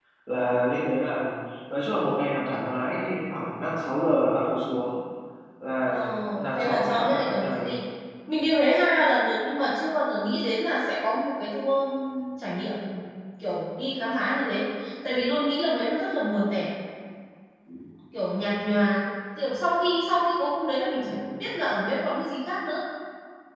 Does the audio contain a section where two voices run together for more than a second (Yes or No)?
Yes